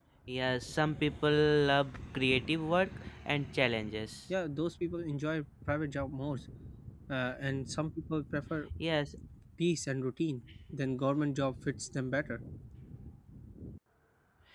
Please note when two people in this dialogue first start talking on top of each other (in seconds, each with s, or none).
none